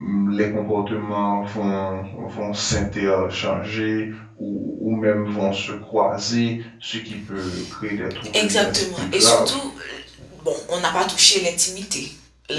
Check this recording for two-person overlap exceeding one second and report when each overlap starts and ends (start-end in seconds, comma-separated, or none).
8.3-9.6